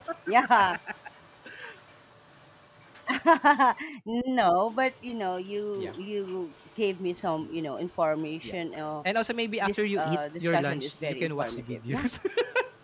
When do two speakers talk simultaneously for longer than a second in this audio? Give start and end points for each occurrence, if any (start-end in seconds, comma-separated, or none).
9.6-12.1